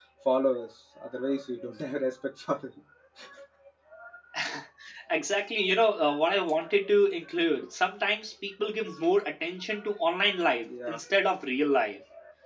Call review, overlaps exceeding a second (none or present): none